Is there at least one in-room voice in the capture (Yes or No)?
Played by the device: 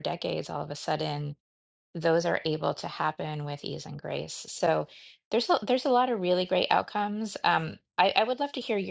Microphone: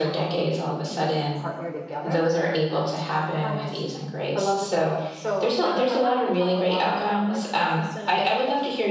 Yes